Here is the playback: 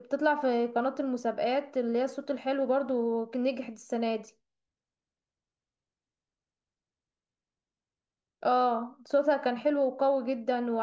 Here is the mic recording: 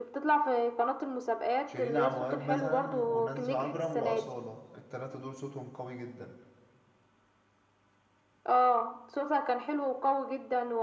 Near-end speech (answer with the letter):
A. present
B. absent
A